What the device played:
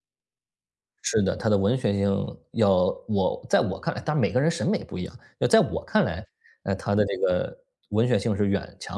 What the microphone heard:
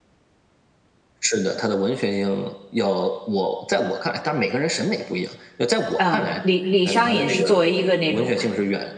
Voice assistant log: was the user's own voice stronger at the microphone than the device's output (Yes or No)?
Yes